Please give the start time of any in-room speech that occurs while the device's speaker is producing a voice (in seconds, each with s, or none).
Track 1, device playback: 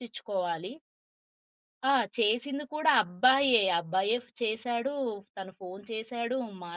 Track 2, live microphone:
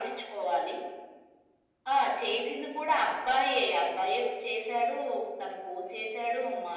none